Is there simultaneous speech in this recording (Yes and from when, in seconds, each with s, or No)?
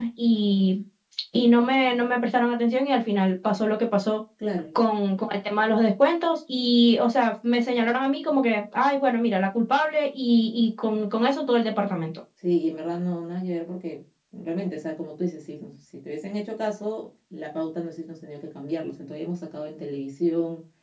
No